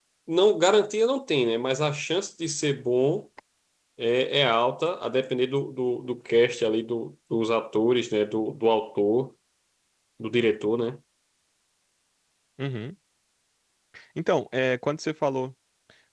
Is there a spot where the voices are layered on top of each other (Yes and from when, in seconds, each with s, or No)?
No